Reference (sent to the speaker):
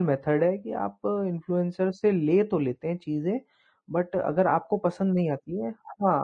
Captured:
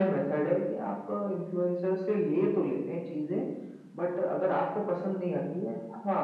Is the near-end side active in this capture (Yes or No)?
No